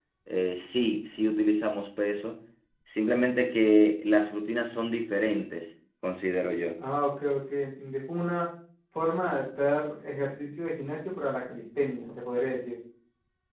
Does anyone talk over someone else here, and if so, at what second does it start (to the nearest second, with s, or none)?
none